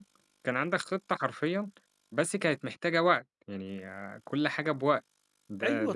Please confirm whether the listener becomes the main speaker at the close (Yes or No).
Yes